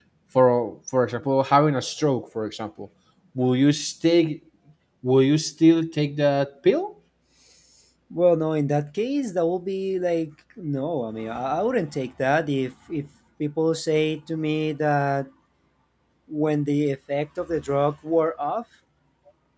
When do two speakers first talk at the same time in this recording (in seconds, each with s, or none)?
none